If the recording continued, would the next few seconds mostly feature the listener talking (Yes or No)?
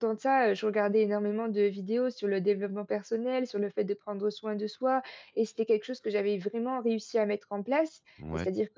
No